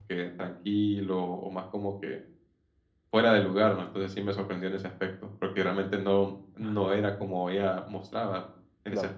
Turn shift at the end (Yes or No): Yes